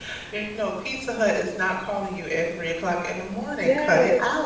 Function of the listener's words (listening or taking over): taking over